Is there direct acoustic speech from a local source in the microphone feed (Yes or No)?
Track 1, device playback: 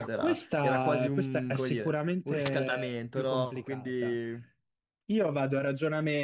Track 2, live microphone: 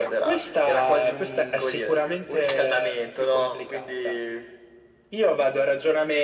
No